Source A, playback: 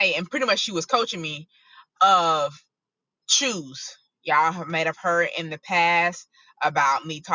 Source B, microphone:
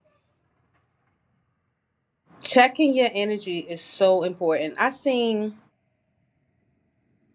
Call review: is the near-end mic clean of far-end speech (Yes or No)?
Yes